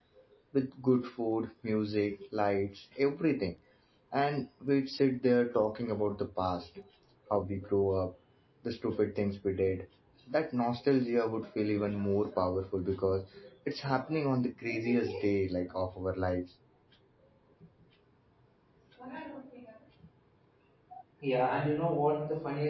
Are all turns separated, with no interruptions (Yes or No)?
Yes